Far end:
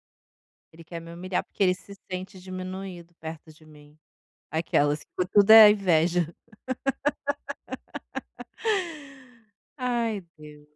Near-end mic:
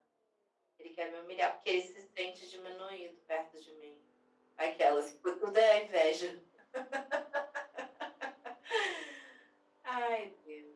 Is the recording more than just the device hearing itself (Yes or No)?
No